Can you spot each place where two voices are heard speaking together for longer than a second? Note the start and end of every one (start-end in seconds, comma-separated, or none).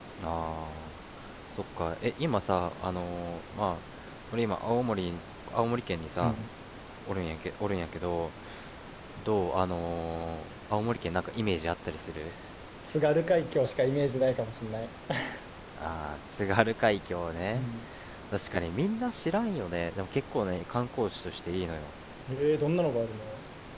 none